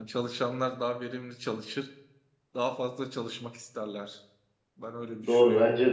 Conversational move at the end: taking over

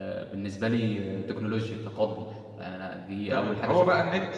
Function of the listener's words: taking over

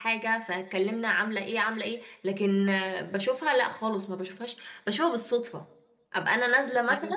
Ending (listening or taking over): listening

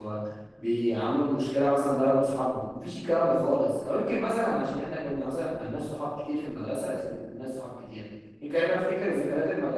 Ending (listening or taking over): listening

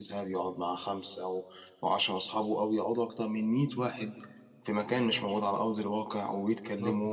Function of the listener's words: taking over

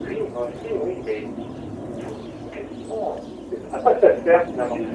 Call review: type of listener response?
listening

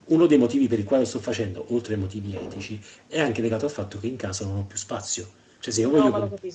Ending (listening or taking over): taking over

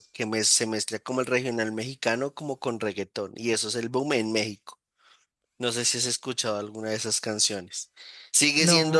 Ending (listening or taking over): listening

